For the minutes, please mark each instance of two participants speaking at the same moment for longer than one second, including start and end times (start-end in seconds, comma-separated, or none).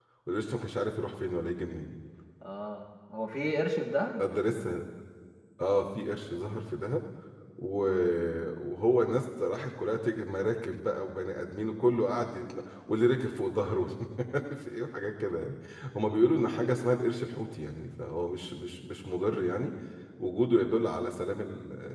none